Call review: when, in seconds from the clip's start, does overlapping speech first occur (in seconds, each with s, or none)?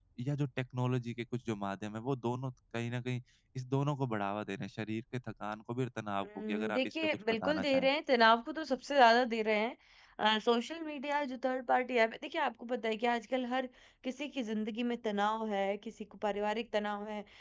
6.2 s